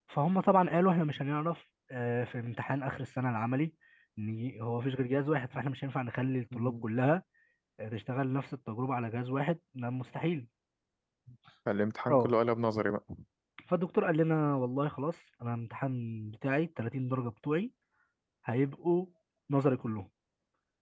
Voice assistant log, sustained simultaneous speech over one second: none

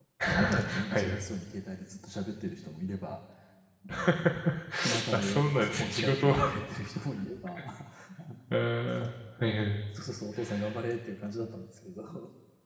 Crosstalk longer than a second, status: present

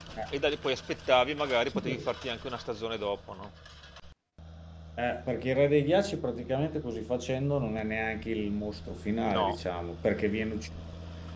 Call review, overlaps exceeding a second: none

